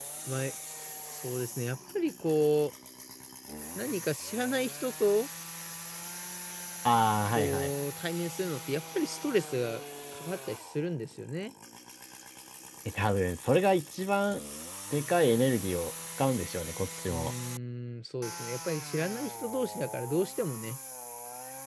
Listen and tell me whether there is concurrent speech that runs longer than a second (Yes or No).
No